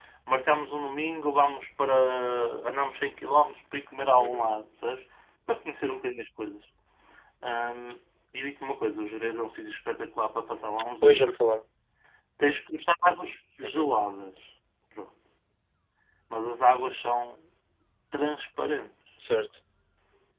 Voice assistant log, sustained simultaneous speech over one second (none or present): none